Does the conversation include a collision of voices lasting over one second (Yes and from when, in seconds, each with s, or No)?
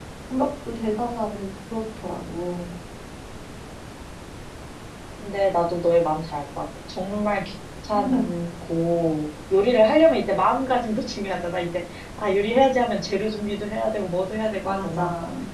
No